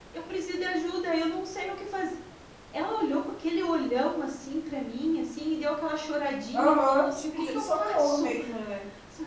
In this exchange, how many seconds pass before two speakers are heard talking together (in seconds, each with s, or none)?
6.5 s